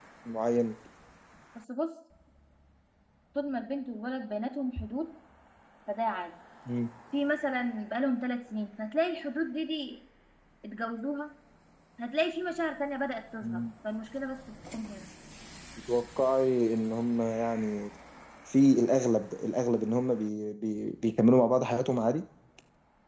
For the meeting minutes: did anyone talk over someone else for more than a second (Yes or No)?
No